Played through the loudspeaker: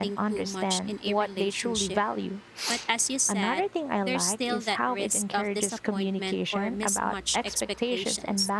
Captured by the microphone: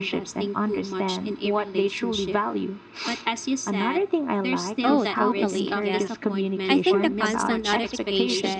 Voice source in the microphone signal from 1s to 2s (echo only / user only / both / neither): echo only